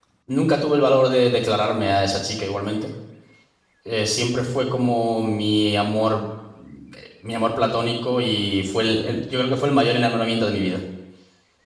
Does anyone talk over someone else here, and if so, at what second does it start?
none

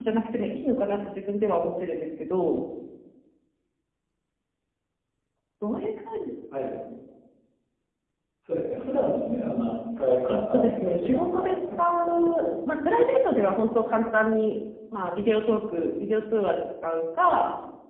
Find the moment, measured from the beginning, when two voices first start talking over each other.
10.3 s

